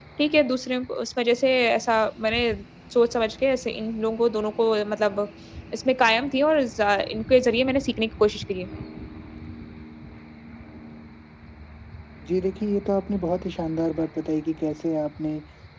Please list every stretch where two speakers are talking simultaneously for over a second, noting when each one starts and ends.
none

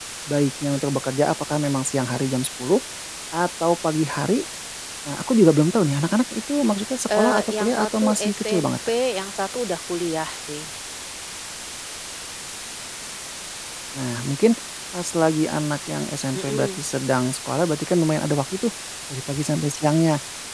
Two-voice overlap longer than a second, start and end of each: 7.1-8.7

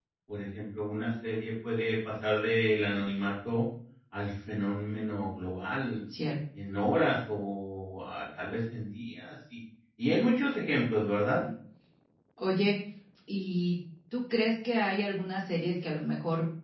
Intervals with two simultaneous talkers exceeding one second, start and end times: none

